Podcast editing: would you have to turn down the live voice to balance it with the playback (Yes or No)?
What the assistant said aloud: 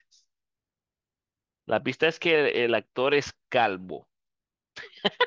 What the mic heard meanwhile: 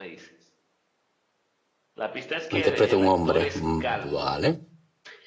Yes